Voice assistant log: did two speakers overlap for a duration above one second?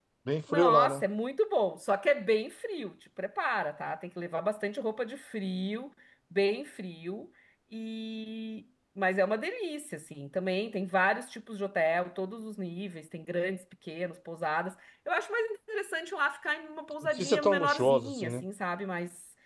Yes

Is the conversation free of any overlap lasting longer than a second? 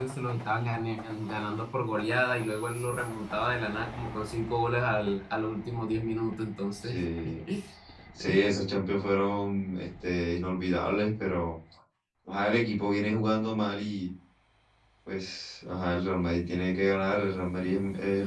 Yes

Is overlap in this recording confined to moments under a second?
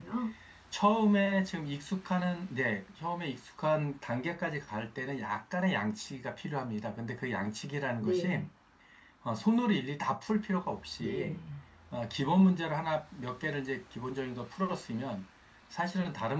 Yes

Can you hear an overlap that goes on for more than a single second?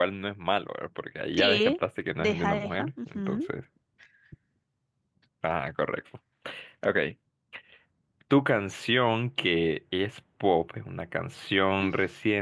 Yes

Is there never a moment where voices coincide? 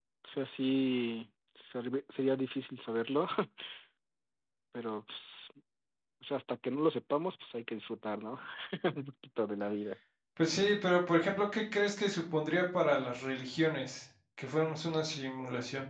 Yes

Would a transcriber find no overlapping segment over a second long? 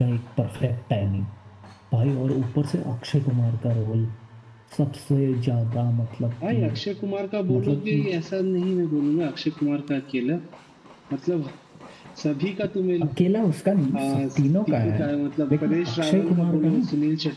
No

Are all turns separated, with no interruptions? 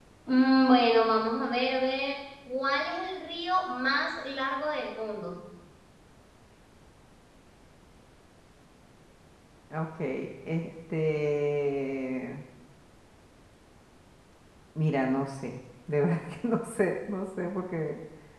Yes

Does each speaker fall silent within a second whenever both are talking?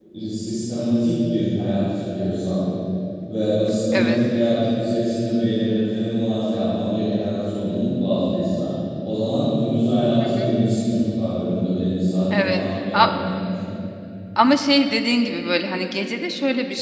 Yes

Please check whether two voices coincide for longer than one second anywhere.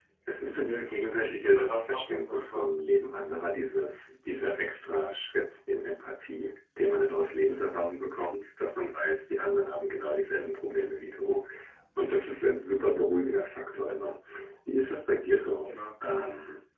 Yes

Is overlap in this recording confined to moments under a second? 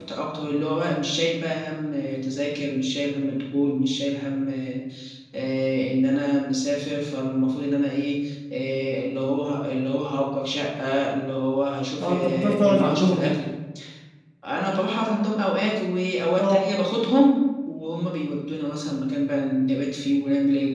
No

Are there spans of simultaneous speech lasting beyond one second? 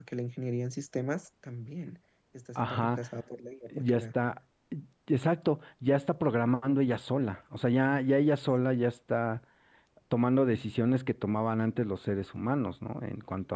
No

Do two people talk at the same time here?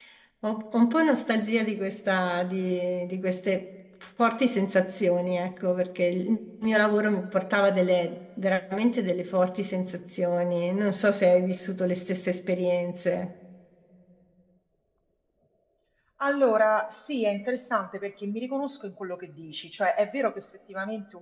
No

